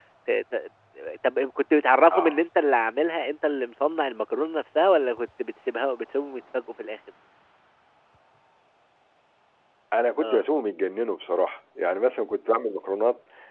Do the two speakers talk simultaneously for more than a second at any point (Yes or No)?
No